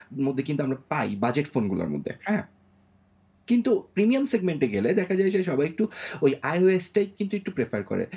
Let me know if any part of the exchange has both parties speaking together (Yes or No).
No